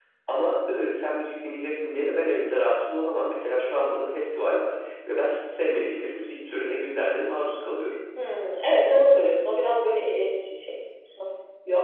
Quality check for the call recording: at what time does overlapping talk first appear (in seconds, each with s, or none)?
none